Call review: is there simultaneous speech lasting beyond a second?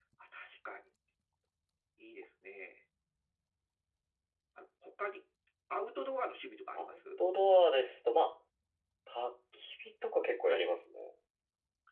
No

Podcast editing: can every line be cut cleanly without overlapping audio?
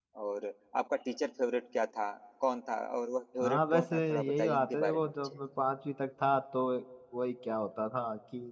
No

